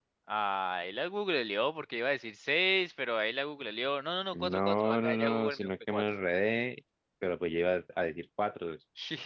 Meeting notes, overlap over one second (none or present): present